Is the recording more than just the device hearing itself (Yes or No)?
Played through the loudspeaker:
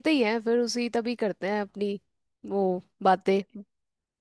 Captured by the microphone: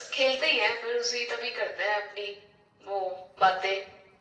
No